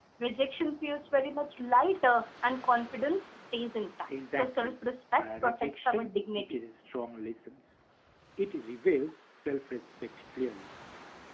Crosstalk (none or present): present